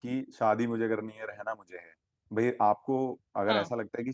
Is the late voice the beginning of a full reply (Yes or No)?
No